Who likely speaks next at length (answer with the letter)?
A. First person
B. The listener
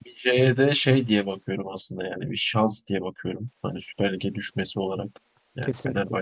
A